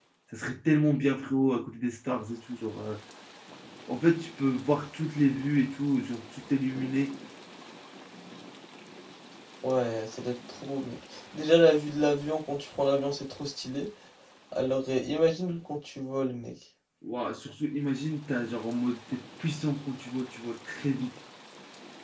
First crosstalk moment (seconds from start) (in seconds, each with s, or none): none